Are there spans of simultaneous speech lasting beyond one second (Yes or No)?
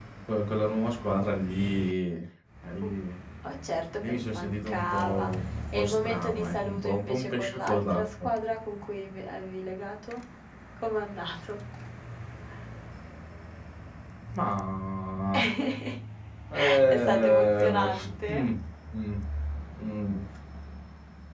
Yes